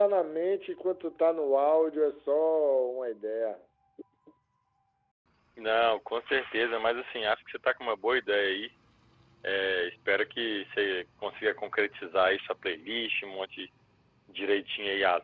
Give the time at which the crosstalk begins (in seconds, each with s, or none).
none